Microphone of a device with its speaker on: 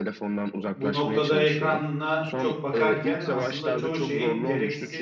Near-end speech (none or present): present